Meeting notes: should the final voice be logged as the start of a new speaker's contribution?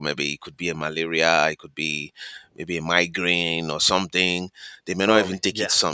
No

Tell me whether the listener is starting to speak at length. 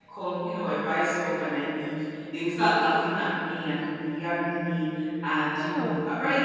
No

